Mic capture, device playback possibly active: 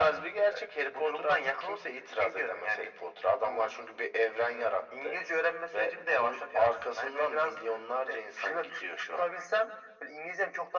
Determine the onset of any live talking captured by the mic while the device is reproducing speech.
none

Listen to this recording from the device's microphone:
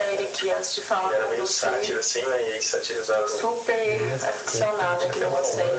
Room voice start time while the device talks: 4 s

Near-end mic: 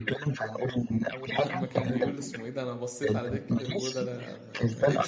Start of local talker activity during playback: 1 s

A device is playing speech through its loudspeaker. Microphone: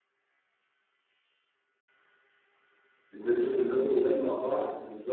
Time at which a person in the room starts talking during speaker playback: 3 s

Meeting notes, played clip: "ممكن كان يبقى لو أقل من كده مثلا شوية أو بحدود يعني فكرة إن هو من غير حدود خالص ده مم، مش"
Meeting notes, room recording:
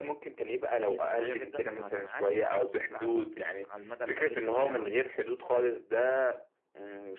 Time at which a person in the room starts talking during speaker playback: 1 s

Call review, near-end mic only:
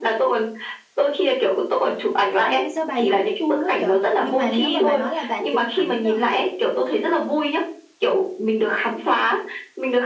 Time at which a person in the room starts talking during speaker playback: 2 s

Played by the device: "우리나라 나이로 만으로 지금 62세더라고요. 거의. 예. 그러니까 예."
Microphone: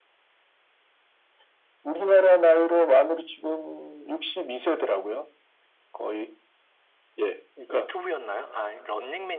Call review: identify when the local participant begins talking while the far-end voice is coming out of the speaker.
8 s

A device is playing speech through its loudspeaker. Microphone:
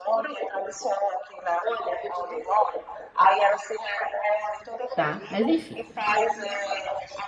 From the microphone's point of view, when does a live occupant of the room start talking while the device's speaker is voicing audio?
5 s

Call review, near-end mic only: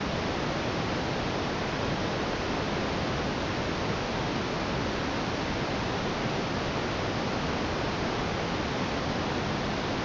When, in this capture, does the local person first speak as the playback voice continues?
none

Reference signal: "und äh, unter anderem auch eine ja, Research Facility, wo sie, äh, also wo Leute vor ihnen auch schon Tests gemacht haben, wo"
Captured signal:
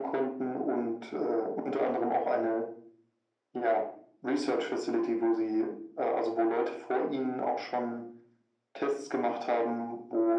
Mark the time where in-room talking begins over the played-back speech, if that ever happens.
none

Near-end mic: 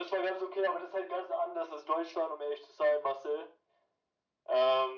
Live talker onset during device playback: none

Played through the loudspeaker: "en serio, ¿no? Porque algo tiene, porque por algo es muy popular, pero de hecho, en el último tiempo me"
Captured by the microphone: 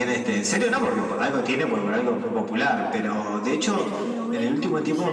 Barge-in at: 4 s

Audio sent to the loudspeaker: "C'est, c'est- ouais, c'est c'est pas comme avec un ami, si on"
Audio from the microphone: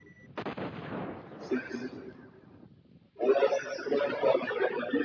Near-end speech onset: none

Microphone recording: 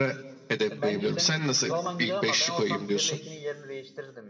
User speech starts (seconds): 1 s

